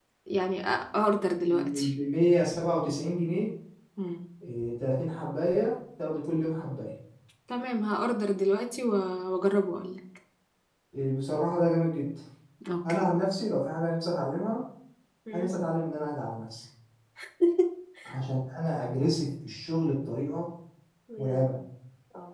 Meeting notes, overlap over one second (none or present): none